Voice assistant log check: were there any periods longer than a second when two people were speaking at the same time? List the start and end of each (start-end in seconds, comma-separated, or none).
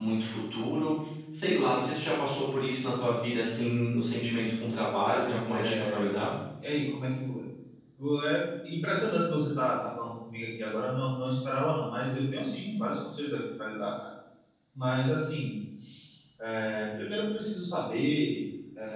5.0-6.3